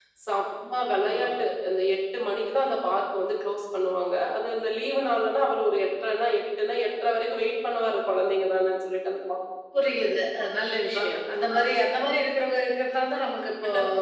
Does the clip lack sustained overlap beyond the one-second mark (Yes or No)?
Yes